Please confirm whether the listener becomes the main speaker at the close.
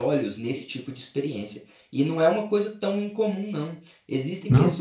No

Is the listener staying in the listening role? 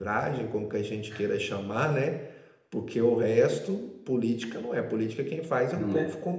Yes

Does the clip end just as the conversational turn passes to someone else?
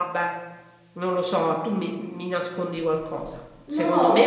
No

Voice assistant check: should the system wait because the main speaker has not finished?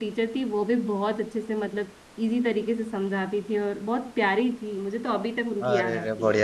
No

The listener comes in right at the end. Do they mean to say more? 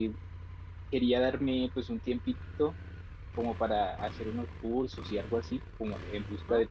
No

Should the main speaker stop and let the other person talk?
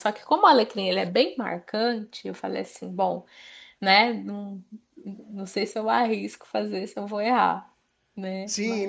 Yes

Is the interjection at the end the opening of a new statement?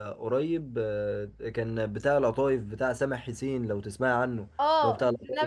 Yes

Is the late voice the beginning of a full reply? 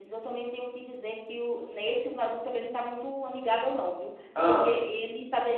No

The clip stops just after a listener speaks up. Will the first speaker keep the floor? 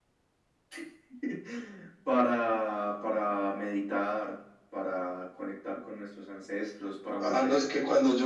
No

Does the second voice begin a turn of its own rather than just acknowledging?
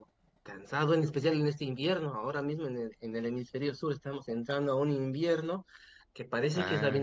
No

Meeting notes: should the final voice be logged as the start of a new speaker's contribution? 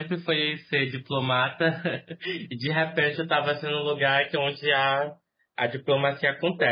Yes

